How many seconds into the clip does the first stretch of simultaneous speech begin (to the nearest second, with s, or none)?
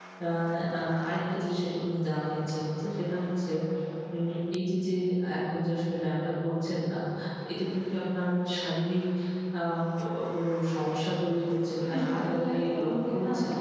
12 s